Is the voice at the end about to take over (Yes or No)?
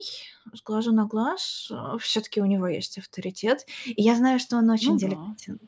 No